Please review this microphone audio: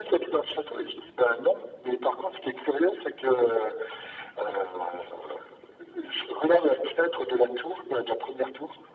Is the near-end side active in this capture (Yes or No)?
No